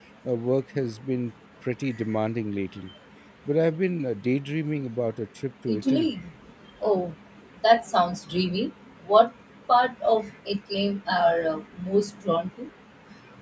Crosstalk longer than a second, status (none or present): none